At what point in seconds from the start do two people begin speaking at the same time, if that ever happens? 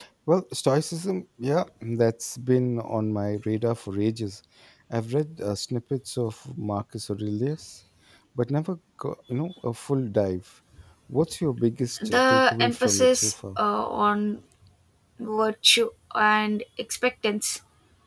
12.0 s

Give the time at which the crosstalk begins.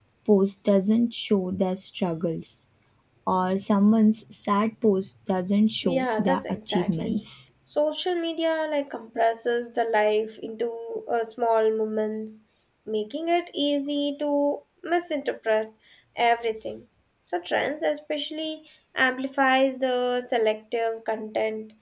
5.8 s

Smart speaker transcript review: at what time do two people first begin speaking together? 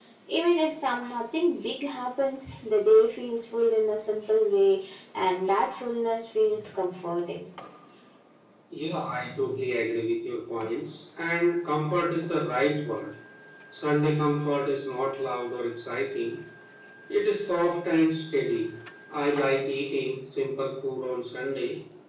none

